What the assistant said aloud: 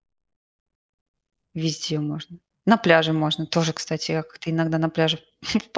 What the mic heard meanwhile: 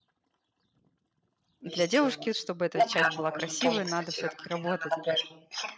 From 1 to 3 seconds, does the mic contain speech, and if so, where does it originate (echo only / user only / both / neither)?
both